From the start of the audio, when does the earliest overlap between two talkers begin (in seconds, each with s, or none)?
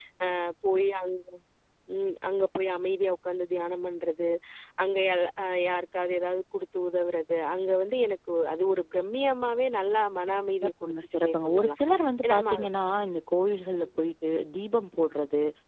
10.6 s